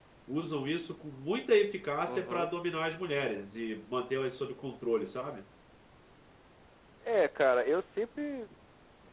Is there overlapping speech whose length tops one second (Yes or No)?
No